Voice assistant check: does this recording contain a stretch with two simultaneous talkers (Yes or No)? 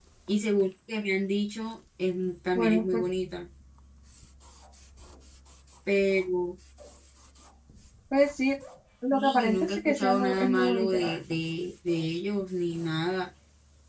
Yes